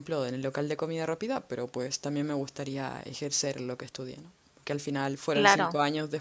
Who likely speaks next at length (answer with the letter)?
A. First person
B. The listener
A